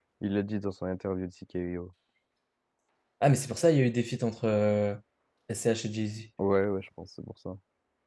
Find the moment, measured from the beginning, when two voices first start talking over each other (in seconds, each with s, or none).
none